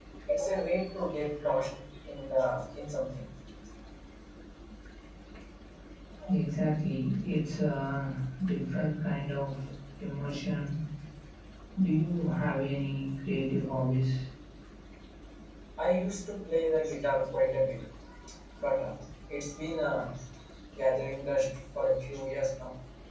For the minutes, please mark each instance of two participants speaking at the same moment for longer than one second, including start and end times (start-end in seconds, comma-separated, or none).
none